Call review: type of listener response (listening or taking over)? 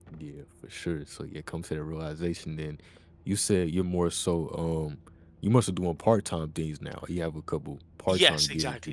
taking over